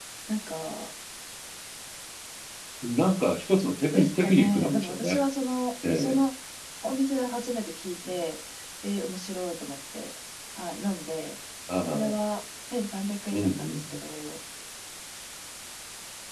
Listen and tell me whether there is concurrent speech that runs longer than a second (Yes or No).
Yes